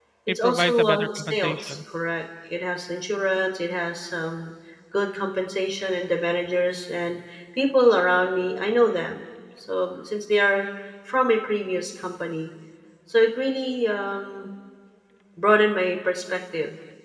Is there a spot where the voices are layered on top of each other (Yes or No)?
Yes